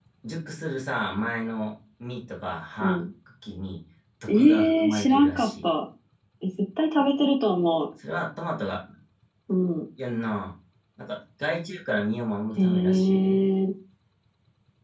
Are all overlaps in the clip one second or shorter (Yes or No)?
No